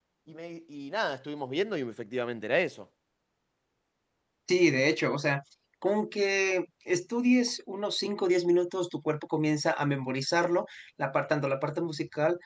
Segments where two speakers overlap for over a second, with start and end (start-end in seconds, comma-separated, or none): none